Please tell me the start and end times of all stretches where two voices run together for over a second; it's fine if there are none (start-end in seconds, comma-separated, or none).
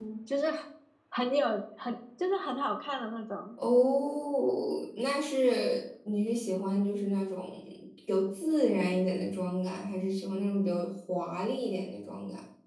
none